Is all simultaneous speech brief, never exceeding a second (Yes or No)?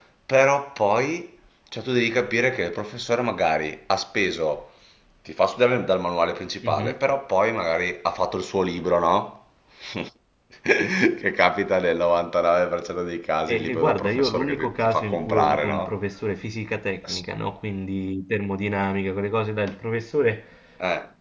No